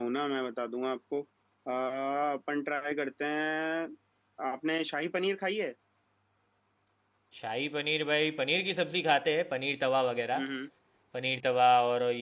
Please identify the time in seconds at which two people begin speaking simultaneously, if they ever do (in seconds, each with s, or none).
none